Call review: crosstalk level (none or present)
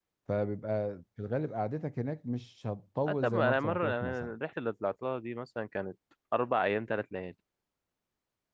present